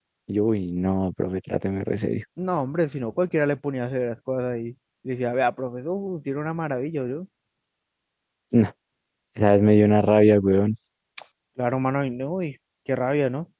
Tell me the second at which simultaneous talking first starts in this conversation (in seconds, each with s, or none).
none